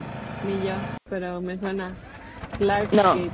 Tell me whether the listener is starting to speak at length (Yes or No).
Yes